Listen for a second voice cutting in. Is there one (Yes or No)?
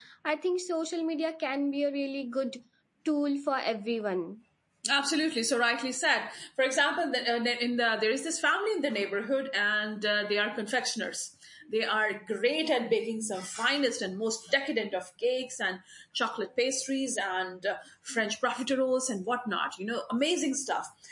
No